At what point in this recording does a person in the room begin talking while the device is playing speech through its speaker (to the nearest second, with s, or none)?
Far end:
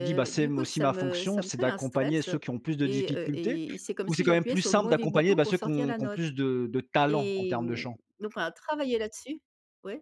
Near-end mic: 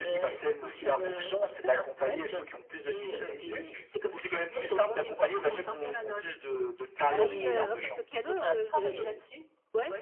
7 s